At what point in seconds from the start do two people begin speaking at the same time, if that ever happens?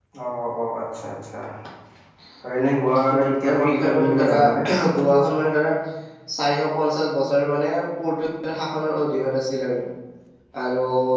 3.1 s

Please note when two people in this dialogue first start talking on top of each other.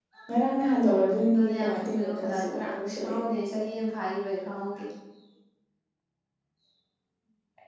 1.3 s

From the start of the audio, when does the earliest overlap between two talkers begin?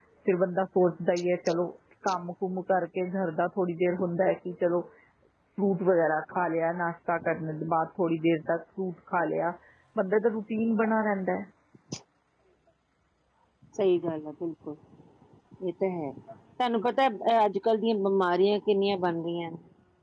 none

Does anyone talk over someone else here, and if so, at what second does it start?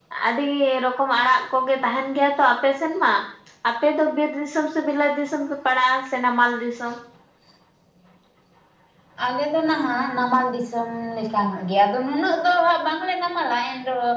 none

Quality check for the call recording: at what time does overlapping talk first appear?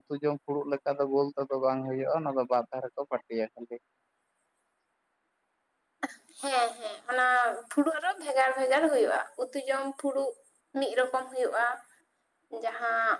none

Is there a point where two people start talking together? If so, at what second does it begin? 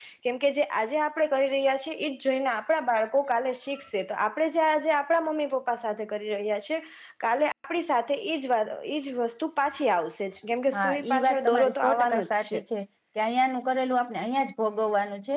10.7 s

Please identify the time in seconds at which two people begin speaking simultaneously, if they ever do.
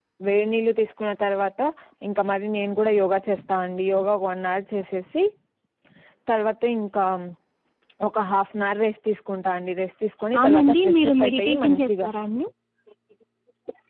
10.3 s

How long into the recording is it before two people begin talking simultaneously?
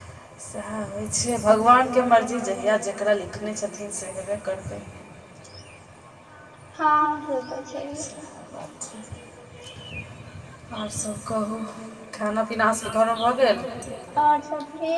none

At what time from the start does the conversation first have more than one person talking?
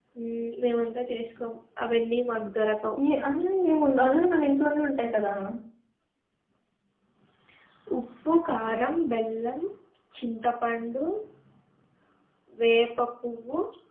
none

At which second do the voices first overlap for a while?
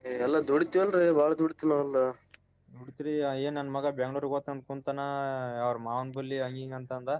none

